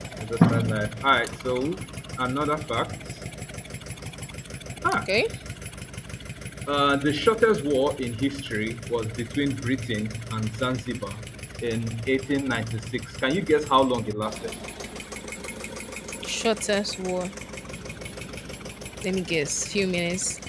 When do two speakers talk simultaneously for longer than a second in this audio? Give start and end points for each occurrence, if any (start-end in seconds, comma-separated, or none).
none